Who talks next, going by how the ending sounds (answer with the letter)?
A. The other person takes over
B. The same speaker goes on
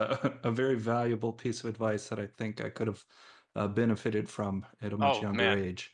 A